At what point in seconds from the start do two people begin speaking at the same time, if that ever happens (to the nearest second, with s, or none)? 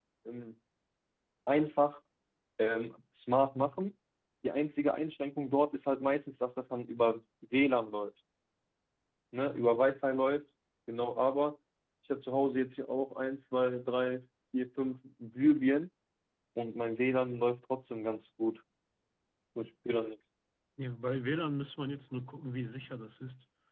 none